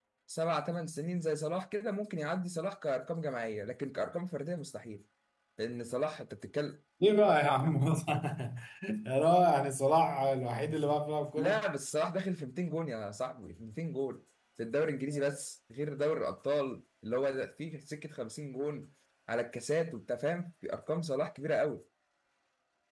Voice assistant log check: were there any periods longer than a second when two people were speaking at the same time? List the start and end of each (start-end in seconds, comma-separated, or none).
none